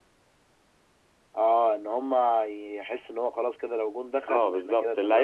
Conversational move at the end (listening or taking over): taking over